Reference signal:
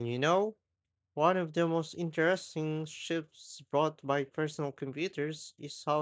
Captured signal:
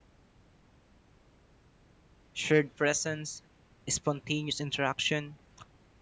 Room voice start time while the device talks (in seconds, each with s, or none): 2.3 s